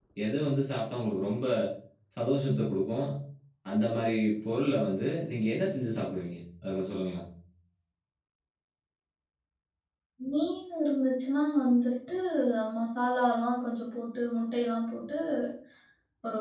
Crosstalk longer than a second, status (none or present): none